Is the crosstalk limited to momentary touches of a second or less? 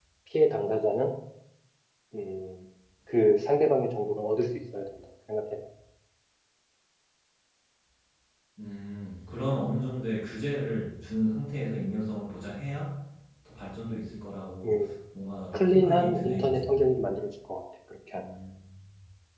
No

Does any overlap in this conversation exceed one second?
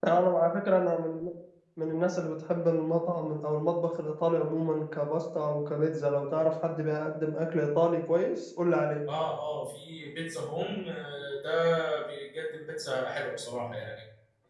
No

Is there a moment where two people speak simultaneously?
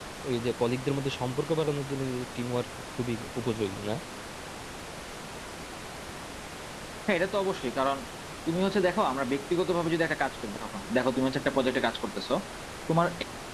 No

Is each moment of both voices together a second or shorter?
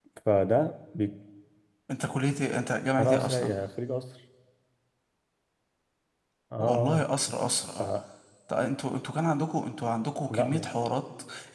Yes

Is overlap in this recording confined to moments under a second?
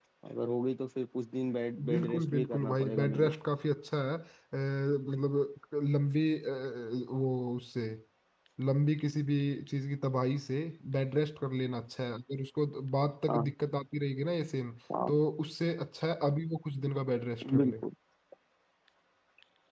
No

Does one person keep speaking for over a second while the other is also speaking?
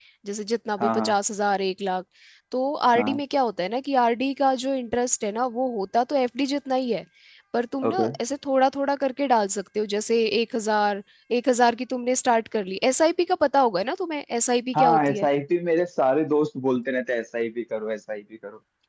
No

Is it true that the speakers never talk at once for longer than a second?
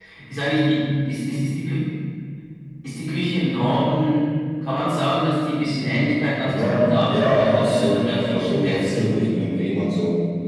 No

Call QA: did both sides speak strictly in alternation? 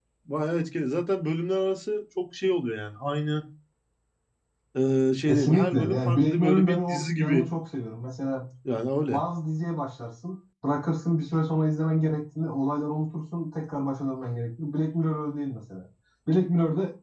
No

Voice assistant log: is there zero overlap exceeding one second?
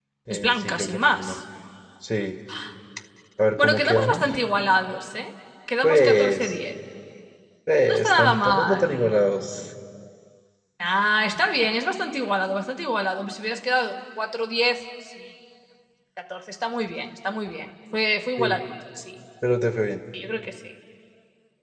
No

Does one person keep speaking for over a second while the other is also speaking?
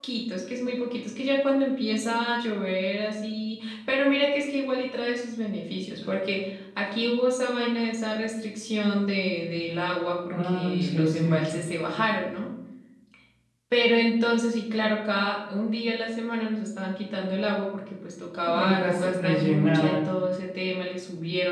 Yes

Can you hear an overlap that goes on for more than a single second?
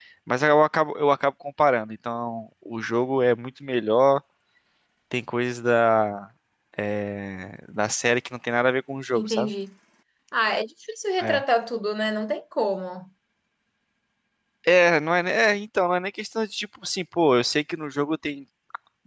No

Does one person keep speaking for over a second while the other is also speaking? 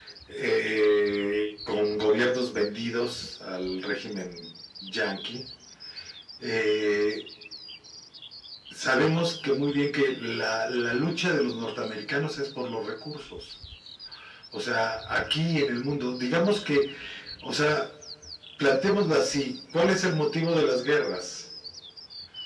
No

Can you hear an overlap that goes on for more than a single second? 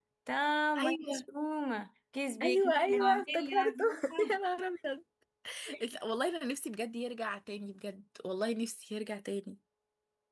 Yes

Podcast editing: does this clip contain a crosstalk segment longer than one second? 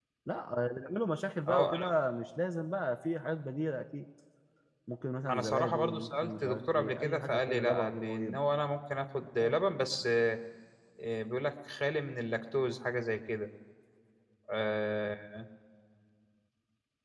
Yes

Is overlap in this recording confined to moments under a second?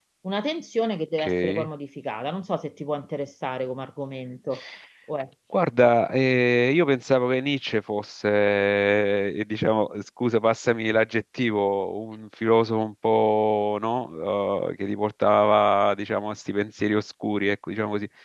Yes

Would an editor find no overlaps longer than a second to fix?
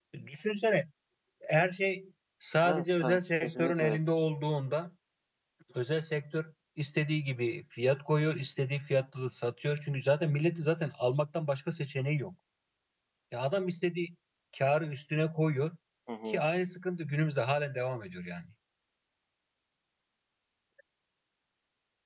No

